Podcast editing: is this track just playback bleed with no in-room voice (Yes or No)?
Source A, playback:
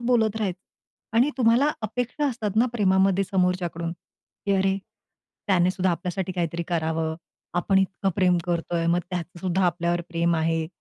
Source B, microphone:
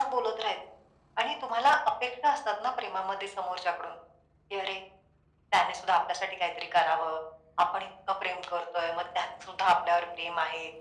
Yes